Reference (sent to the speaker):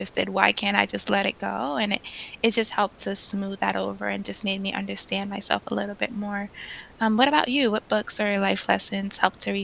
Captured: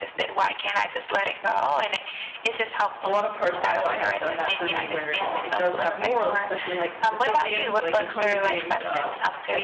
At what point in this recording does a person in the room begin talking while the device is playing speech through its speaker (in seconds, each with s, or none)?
3.0 s